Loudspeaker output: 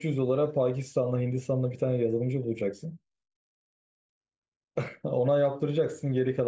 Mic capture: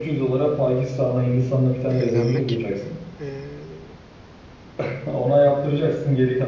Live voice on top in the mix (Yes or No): No